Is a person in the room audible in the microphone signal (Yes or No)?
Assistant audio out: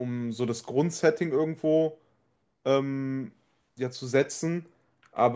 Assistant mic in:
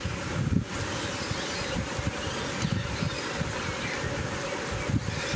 No